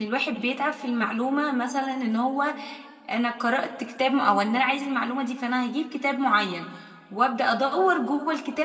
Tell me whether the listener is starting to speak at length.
No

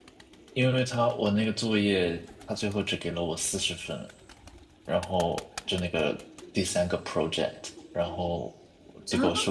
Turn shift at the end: No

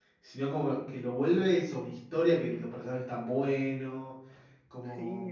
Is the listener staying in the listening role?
No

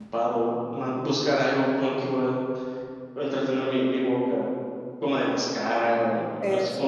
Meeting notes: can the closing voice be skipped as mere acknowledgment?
Yes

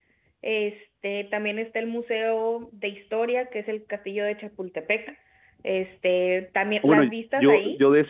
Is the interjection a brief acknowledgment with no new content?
No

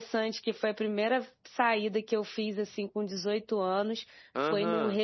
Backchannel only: Yes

